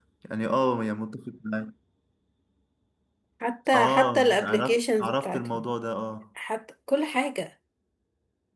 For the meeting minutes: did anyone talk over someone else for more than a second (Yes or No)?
Yes